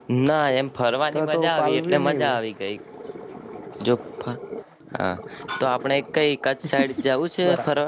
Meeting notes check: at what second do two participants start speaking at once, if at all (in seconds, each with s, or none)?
1.1 s